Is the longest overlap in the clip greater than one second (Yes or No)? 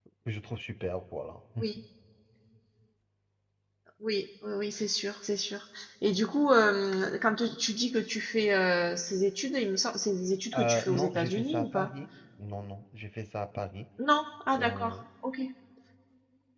Yes